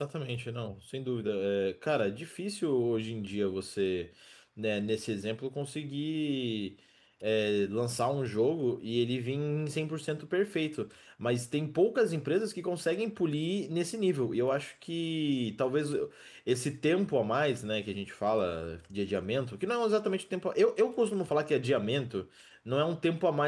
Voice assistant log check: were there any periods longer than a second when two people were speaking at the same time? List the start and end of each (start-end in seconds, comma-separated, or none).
none